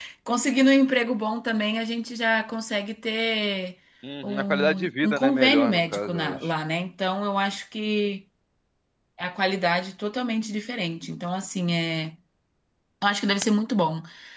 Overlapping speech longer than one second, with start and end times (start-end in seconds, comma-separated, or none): 4.2-6.5